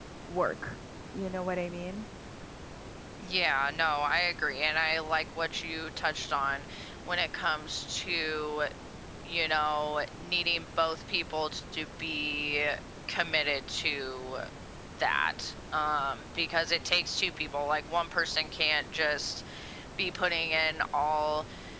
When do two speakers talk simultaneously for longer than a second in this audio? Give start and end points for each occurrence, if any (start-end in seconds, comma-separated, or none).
none